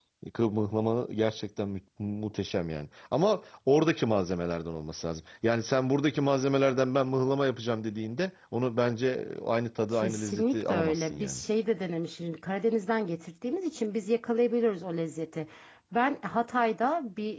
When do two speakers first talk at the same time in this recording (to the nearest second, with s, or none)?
10 s